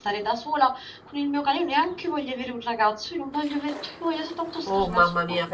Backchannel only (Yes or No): No